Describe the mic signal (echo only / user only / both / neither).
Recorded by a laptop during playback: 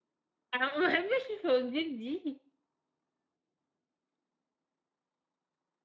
user only